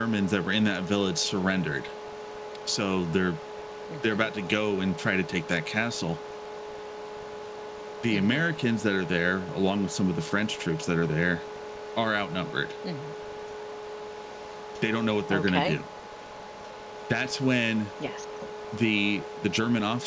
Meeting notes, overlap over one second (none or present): none